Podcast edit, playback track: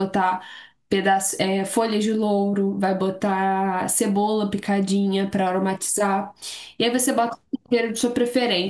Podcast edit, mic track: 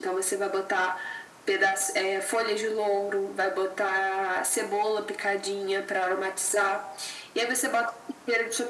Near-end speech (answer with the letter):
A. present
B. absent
B